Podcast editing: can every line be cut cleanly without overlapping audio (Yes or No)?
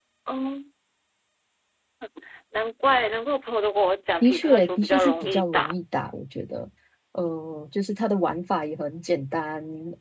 No